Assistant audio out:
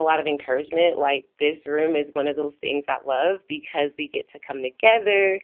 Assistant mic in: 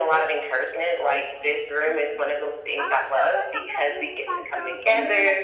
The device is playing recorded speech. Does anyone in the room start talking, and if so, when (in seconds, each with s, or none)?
1.1 s